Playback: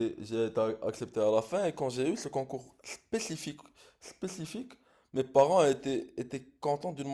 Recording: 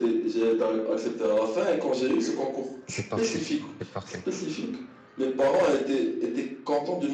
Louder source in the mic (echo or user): echo